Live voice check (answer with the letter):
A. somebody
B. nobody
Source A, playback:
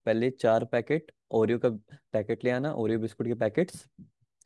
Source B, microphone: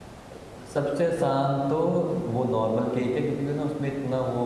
A